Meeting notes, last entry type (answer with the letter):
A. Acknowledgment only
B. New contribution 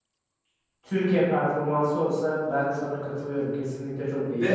B